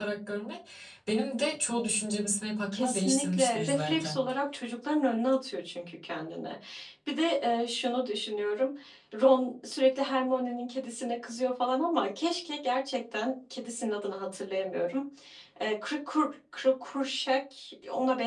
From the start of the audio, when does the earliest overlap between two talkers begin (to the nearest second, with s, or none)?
3 s